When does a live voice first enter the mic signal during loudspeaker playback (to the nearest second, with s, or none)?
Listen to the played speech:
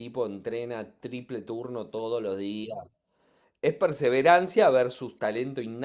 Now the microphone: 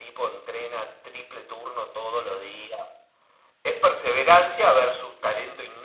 none